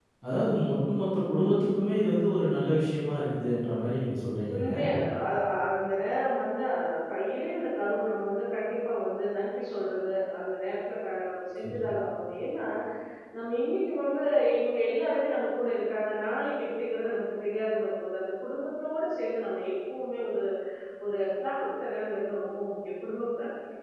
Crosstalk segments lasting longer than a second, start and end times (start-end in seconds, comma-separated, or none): none